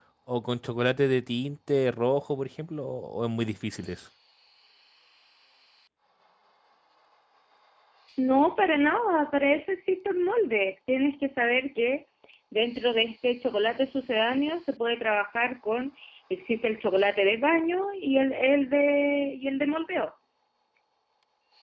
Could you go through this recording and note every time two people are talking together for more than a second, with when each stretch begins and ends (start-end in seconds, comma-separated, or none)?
none